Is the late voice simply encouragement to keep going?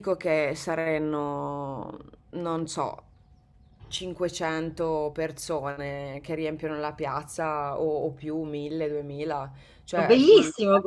No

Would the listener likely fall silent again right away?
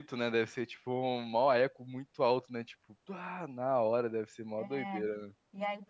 No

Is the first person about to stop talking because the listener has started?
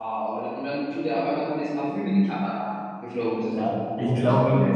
Yes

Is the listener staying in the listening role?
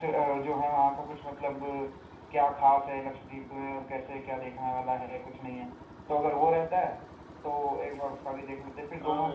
No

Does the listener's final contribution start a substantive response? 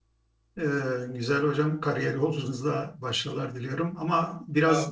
No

